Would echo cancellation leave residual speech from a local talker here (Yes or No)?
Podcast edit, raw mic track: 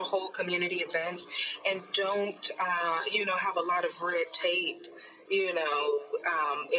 No